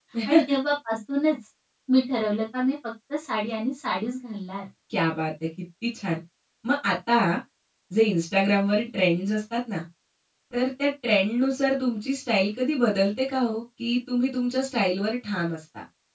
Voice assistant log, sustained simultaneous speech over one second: none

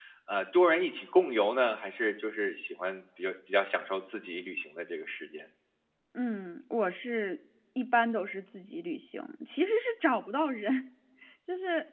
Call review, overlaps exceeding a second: none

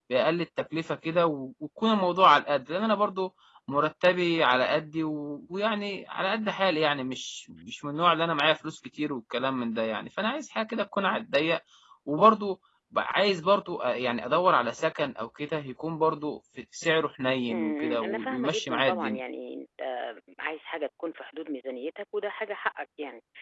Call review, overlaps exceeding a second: present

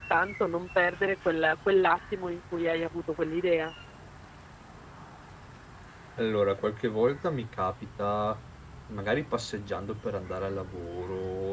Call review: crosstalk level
none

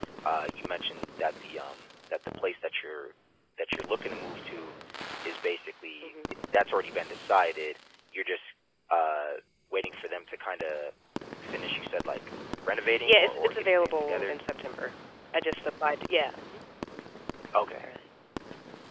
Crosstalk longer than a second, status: present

